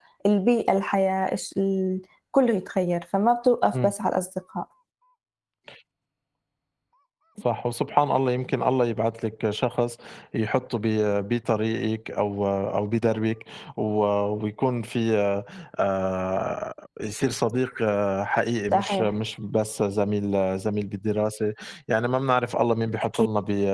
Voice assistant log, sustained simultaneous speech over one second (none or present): none